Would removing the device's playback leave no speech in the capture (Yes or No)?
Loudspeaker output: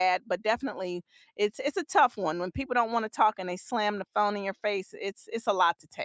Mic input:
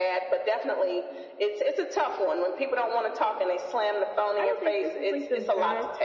No